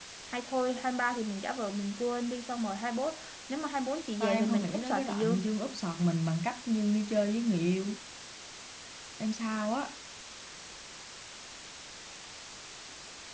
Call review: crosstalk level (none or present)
present